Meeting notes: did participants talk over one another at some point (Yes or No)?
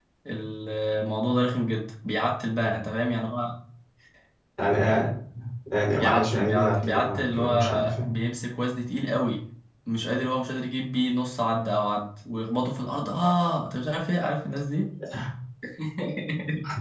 Yes